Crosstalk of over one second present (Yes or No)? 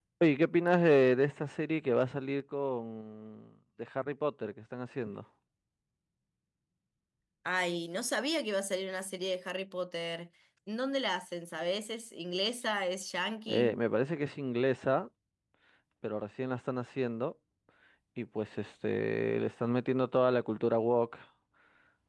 No